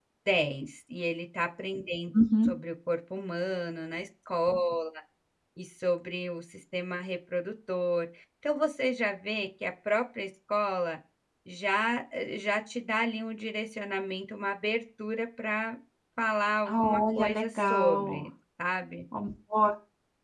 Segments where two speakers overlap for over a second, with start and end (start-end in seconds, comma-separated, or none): 16.6-18.3